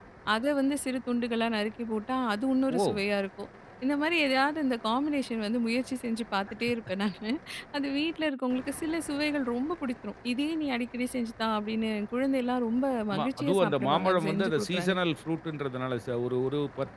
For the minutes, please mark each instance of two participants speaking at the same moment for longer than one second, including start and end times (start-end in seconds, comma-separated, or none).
13.1-15.0